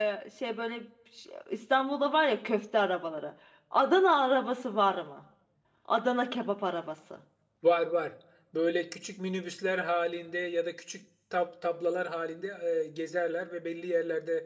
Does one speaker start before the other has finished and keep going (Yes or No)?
No